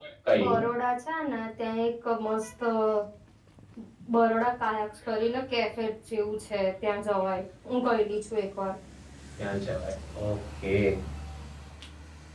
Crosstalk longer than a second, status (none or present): none